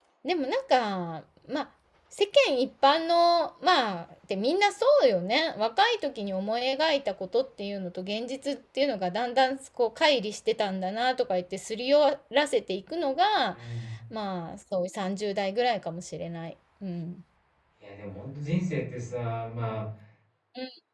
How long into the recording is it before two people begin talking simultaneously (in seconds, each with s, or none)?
none